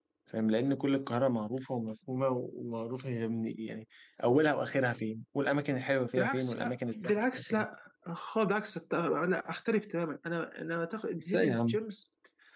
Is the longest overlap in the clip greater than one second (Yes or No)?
Yes